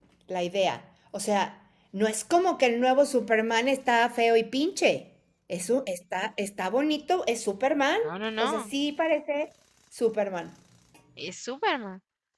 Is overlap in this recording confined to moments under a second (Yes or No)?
Yes